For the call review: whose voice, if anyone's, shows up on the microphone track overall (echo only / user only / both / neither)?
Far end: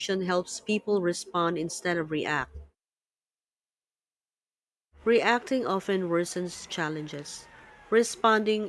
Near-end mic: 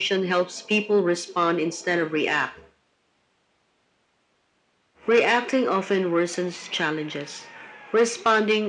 echo only